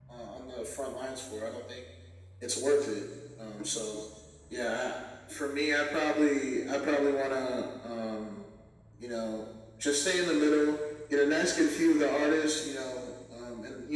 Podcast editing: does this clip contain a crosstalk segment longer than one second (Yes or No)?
No